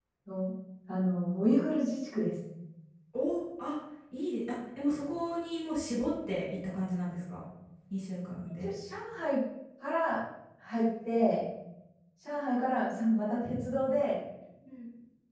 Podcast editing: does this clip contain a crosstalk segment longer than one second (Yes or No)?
No